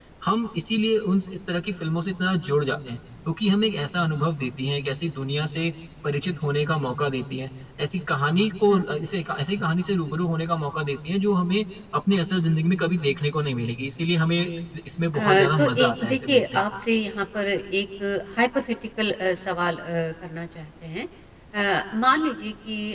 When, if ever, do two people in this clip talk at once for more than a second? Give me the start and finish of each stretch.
15.1-16.6

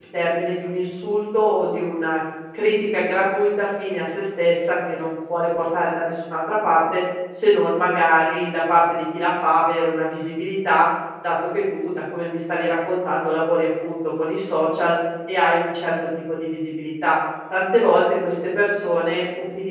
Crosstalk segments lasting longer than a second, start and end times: none

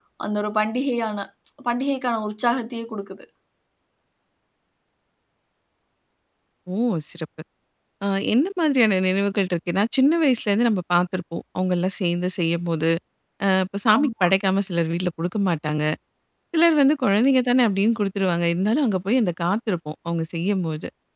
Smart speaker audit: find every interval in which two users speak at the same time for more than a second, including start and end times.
none

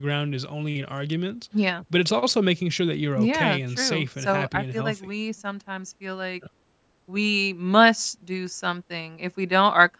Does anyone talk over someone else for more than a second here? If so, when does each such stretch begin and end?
3.2-5.1

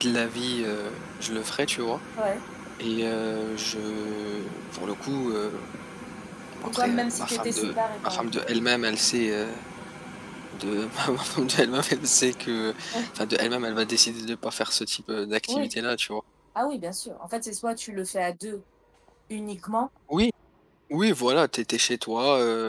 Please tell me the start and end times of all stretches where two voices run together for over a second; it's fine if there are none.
6.6-8.4

